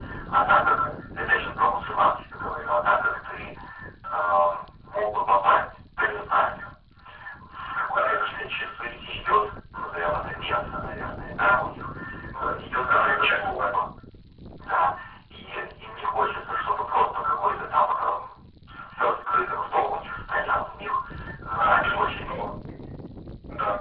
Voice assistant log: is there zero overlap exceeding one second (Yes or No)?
No